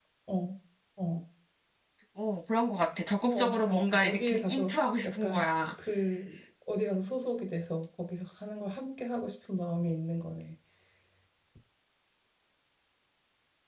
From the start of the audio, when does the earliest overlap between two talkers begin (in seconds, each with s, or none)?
3.2 s